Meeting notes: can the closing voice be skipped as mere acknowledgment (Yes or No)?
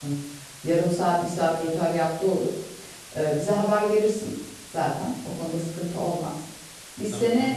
Yes